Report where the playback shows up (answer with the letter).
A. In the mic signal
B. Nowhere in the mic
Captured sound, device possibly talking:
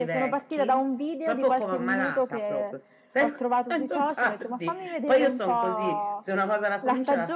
A